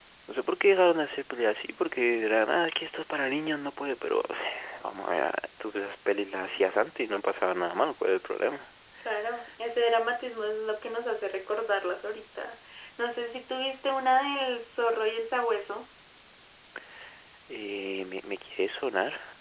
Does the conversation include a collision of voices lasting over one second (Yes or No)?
No